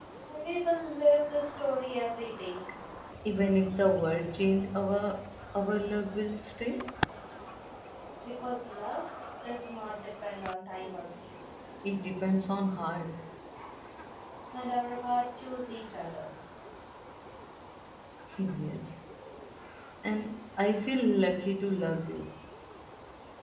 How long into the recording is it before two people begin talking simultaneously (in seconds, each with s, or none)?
none